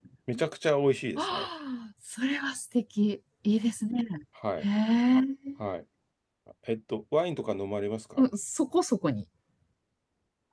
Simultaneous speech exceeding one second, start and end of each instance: none

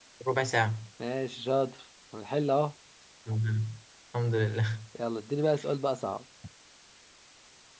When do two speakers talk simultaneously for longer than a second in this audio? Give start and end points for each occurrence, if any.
none

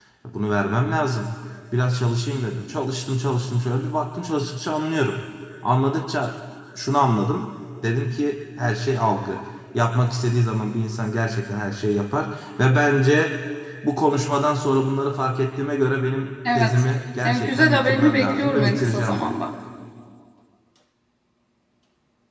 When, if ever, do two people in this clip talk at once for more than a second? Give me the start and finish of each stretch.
17.2-19.3

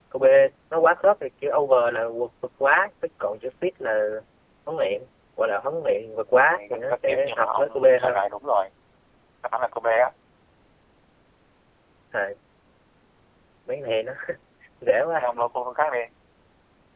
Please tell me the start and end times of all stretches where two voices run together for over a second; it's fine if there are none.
6.4-8.2

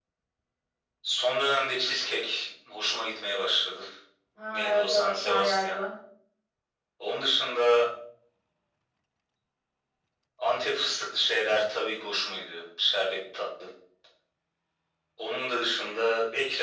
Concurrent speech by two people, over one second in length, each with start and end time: 4.5-5.8

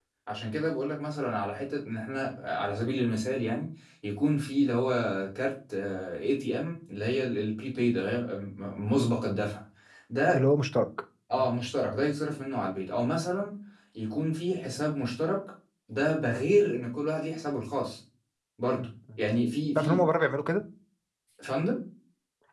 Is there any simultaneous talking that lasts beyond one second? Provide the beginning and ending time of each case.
none

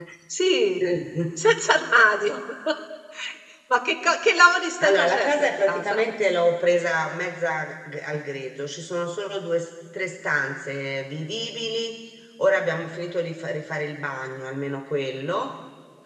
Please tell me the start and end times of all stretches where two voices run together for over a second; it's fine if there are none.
4.8-6.0

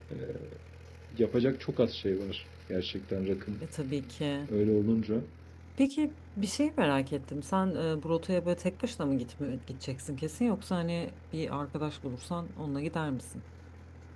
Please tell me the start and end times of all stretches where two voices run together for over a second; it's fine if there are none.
none

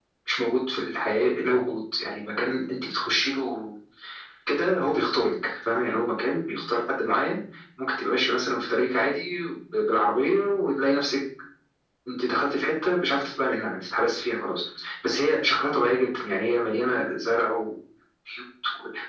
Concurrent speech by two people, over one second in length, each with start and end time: none

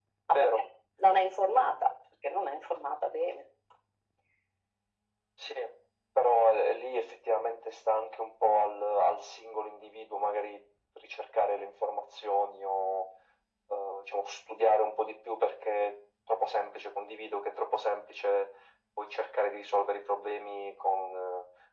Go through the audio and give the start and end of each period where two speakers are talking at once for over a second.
none

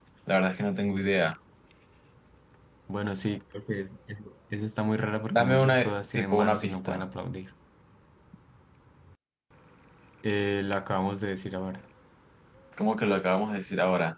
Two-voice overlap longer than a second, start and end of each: 5.3-7.0

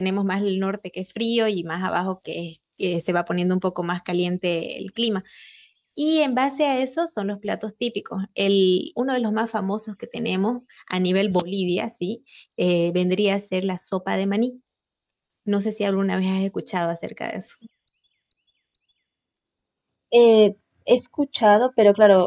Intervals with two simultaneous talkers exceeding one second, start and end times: none

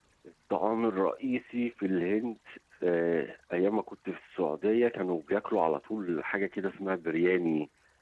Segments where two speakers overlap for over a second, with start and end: none

